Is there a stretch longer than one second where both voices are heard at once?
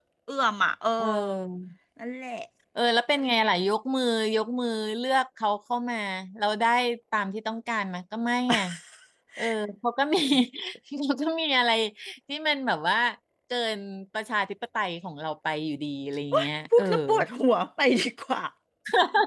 No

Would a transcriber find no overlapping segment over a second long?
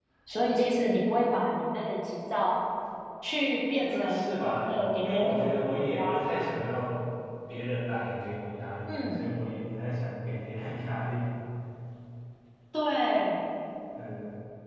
No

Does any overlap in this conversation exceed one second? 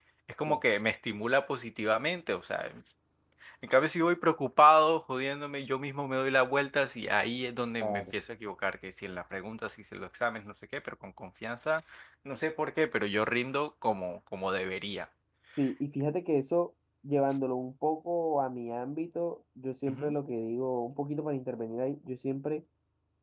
No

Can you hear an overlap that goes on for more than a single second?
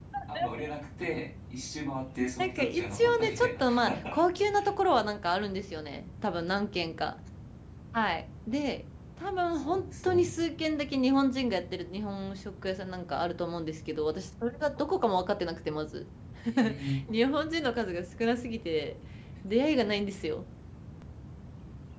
Yes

